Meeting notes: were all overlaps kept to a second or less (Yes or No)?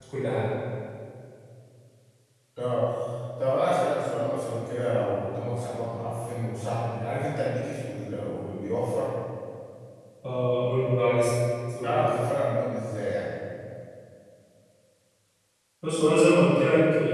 Yes